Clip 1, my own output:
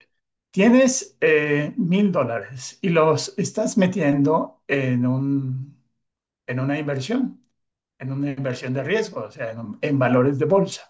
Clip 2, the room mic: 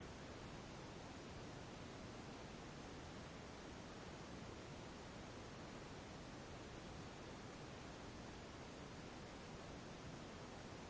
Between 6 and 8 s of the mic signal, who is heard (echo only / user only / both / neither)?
neither